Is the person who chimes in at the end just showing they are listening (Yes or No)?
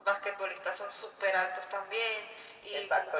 No